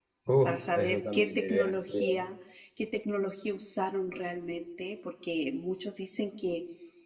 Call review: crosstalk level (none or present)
present